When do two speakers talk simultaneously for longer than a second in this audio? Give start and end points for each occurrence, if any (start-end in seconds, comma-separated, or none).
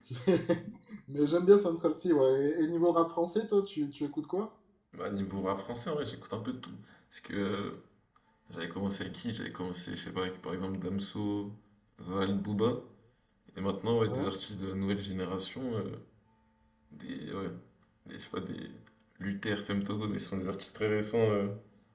none